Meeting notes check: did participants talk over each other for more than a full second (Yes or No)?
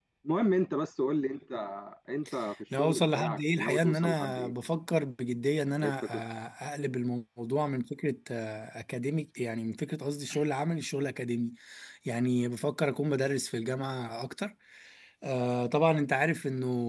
Yes